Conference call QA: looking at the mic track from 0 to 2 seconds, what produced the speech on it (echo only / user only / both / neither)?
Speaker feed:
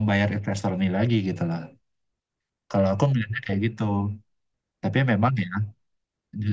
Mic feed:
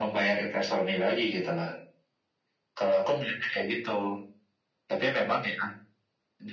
echo only